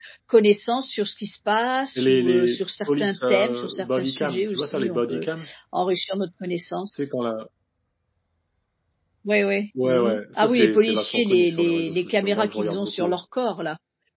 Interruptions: present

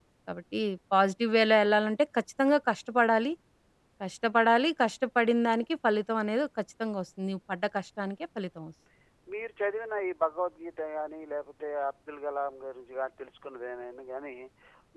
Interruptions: none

